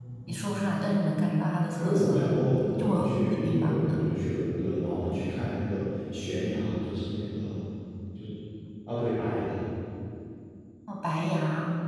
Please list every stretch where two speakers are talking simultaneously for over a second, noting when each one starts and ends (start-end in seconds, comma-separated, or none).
2.8-4.0